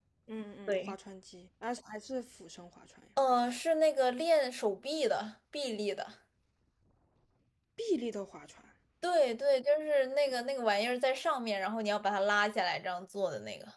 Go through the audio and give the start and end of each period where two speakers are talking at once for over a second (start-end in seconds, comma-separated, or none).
none